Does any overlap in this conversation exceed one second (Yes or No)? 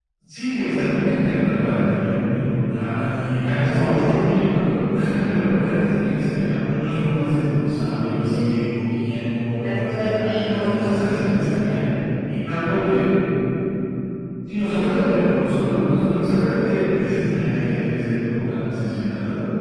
Yes